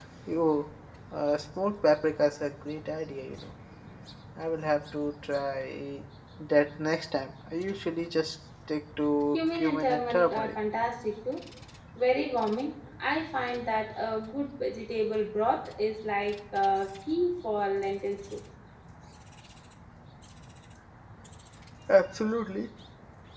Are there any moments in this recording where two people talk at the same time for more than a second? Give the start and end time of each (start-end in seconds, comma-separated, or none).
9.3-10.5